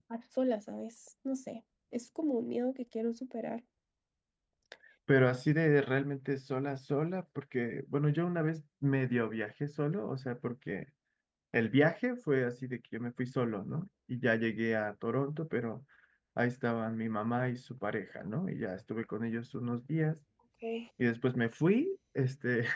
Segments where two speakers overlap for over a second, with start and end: none

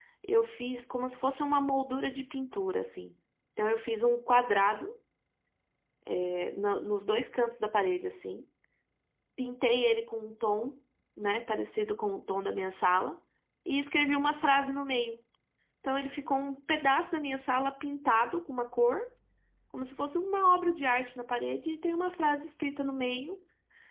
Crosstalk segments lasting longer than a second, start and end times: none

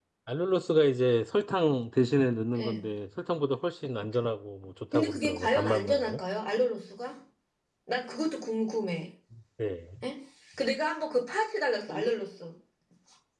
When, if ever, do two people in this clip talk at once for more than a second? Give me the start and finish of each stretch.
4.9-6.2

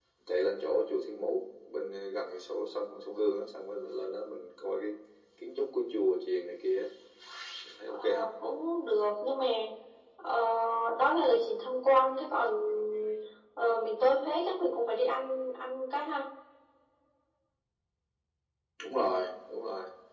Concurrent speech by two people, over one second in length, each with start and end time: none

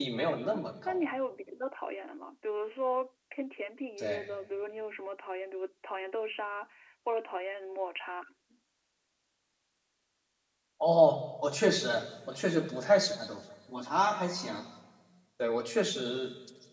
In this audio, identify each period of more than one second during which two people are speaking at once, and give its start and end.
none

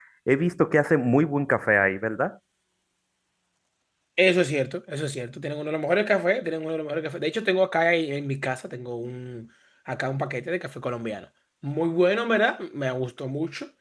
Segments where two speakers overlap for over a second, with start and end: none

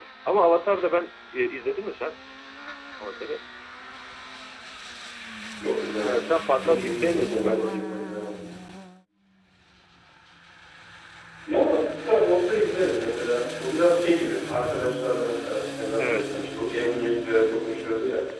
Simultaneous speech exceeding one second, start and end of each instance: 6.6-7.8

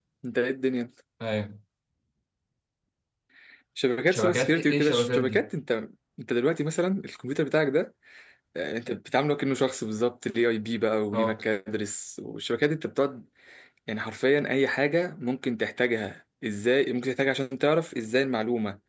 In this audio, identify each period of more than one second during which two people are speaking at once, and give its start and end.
4.1-5.4

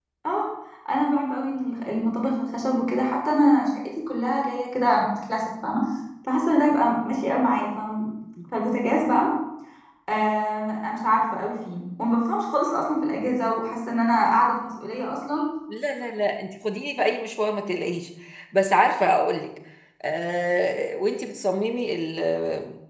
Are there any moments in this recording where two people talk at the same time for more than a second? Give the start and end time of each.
none

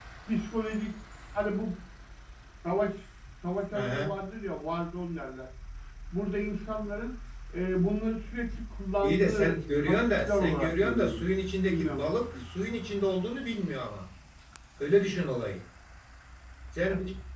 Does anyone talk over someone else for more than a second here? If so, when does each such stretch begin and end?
9.0-11.2

